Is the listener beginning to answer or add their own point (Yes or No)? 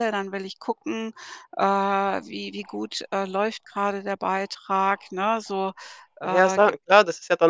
Yes